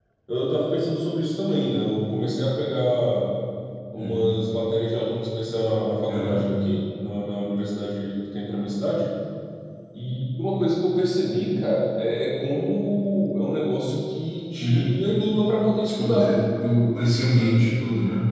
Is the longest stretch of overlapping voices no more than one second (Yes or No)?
Yes